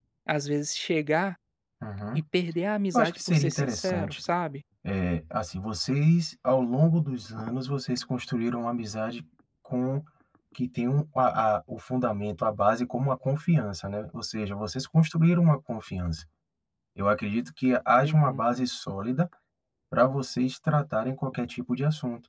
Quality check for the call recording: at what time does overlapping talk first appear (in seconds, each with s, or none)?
2.9 s